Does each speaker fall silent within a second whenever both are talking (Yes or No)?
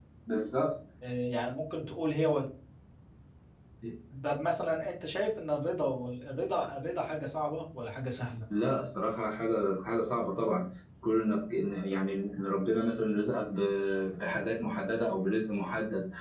Yes